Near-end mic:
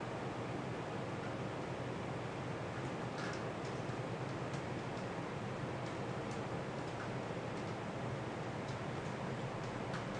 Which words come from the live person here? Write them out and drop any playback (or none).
none